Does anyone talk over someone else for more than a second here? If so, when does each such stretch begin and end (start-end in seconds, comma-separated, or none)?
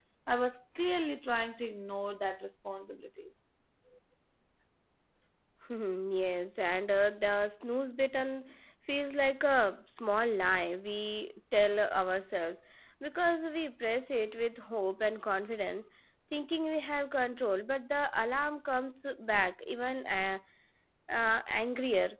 none